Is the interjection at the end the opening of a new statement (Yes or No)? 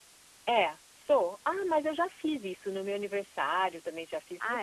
No